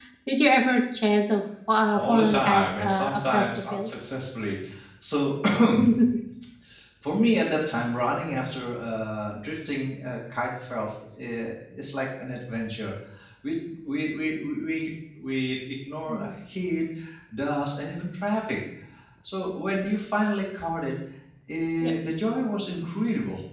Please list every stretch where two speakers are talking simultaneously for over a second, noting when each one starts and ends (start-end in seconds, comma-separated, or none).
2.0-3.9